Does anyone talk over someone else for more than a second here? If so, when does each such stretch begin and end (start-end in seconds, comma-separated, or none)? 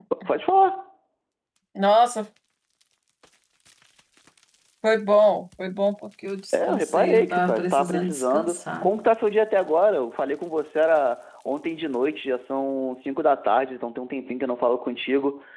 6.5-8.9